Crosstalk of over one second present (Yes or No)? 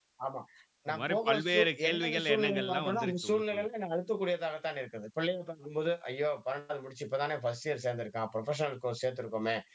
Yes